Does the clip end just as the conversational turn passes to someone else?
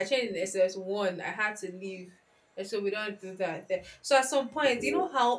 No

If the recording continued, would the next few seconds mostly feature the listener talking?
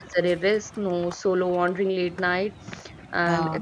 No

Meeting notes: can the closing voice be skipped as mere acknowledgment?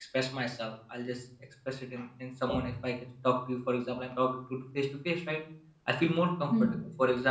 Yes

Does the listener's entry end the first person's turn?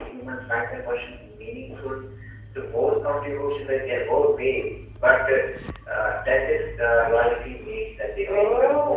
Yes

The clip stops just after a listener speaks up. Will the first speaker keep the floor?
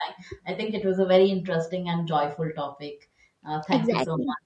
No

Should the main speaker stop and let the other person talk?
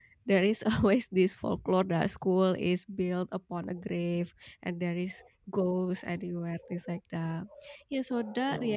No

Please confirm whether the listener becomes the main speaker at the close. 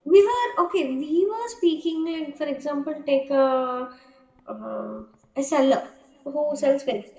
No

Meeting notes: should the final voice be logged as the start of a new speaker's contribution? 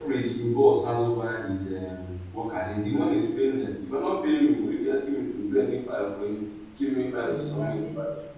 No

